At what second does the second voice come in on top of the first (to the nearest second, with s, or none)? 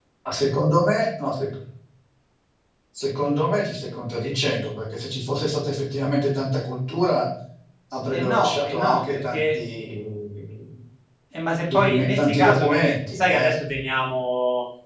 8 s